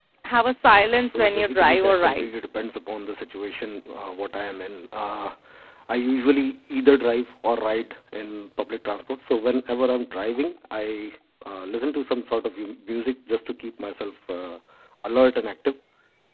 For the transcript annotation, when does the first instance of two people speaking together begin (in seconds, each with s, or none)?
1.0 s